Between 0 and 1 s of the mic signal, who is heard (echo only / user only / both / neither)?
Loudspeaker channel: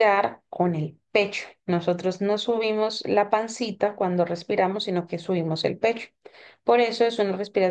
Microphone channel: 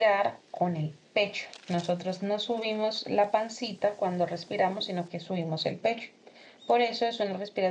echo only